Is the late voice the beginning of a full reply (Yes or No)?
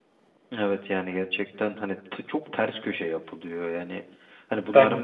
No